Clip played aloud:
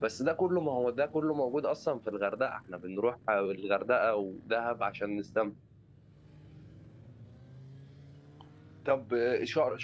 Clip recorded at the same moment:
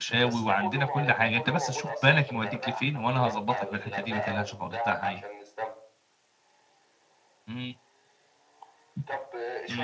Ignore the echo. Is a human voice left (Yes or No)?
Yes